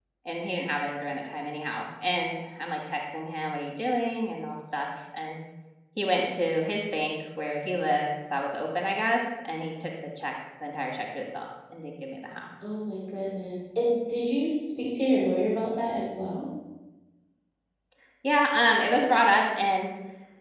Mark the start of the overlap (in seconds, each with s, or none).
none